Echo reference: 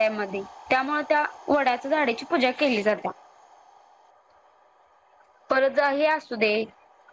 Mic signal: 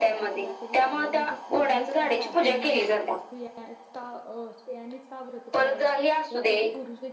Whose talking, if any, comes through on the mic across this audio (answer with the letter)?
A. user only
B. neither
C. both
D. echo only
C